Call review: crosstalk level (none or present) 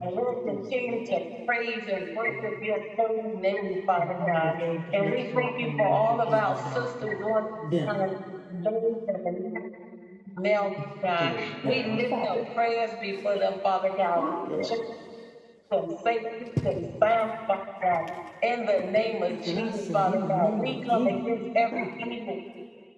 present